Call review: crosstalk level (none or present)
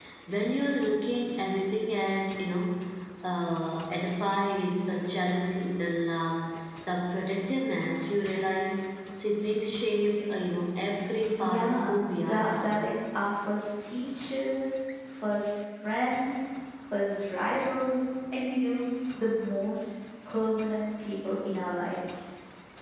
present